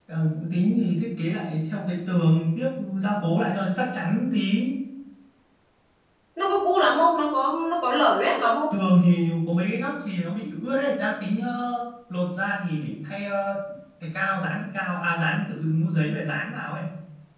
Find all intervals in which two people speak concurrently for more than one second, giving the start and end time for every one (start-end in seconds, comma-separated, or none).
none